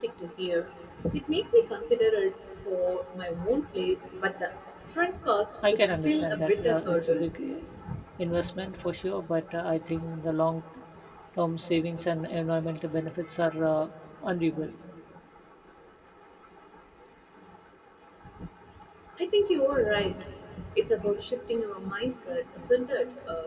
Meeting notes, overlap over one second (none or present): present